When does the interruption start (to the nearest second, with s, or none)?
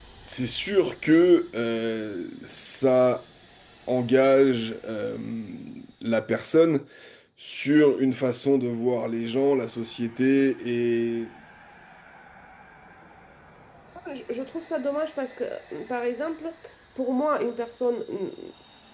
none